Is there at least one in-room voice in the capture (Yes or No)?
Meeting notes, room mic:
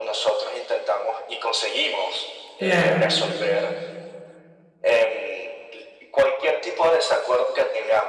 Yes